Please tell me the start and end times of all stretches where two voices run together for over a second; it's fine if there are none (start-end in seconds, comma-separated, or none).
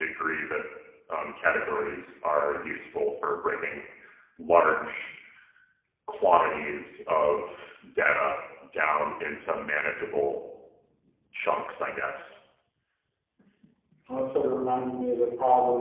none